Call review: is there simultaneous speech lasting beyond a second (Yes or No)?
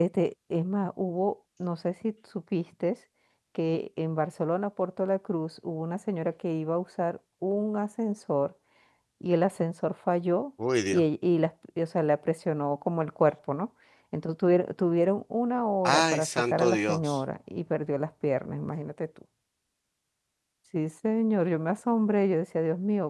Yes